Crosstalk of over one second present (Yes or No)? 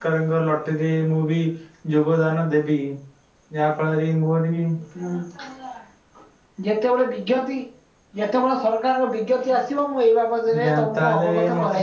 Yes